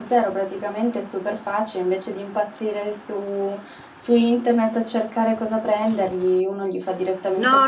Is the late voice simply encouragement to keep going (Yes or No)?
No